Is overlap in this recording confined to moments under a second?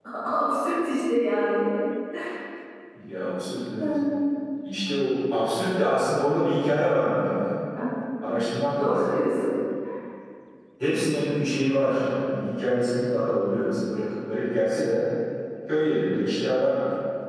Yes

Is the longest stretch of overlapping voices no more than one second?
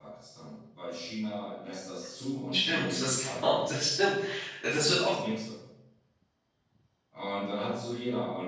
No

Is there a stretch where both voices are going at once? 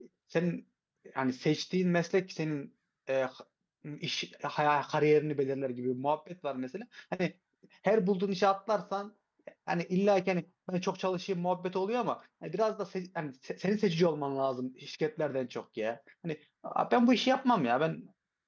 No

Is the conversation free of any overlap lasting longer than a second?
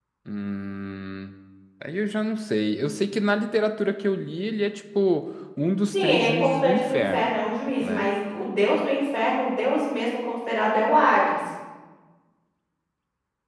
No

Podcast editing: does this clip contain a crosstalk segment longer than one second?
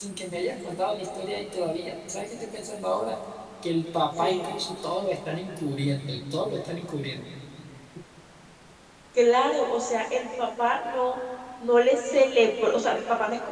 No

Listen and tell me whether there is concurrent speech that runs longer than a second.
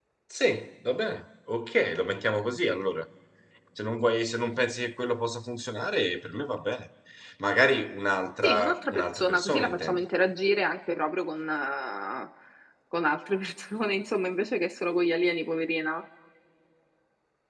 Yes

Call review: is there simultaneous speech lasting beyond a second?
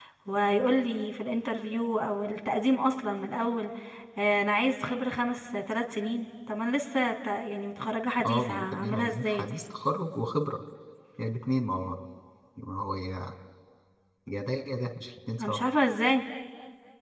Yes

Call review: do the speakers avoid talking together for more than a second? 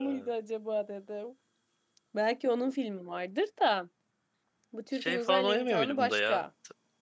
No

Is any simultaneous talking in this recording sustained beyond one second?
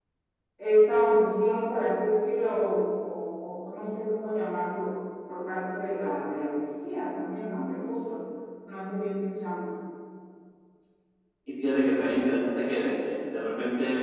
No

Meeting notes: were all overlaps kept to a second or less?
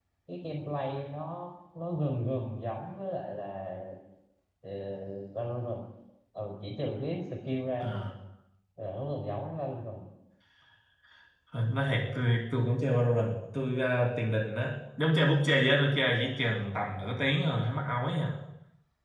Yes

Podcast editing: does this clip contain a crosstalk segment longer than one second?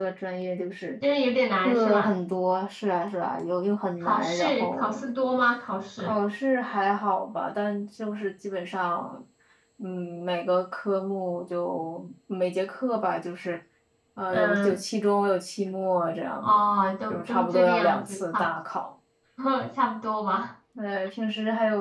Yes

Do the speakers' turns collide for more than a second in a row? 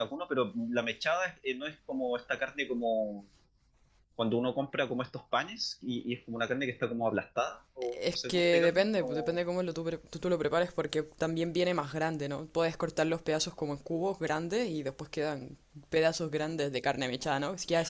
Yes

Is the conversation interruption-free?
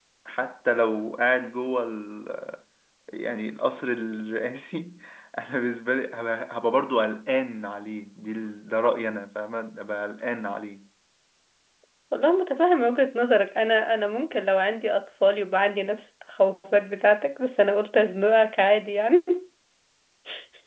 Yes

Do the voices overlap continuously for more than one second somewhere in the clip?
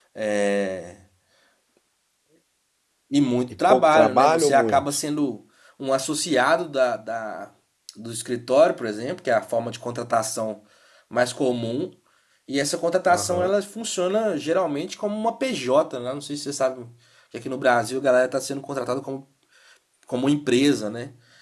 Yes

